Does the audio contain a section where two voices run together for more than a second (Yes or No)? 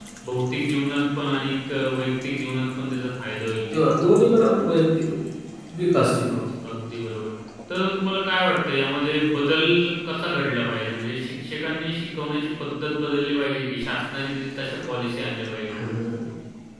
No